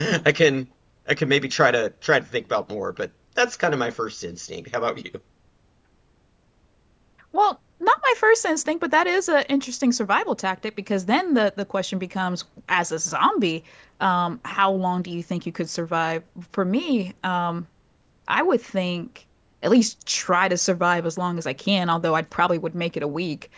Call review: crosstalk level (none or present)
none